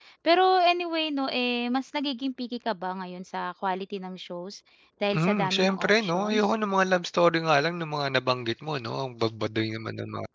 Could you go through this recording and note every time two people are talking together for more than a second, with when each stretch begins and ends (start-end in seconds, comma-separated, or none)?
5.1-6.4